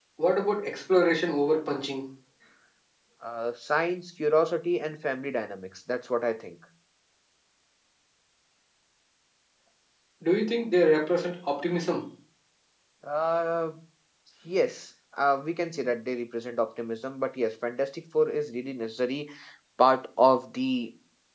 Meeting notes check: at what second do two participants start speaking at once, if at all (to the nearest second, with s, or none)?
none